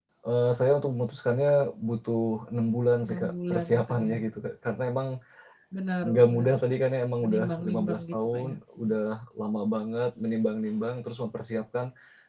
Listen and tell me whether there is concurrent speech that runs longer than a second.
Yes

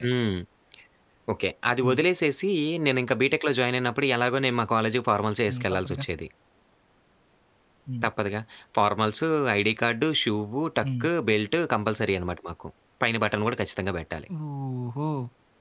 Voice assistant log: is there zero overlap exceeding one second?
Yes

